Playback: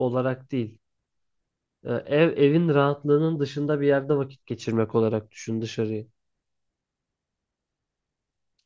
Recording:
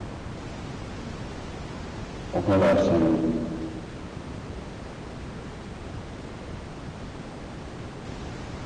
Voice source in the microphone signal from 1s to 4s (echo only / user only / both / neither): user only